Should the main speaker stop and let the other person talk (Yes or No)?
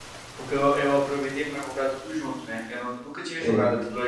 No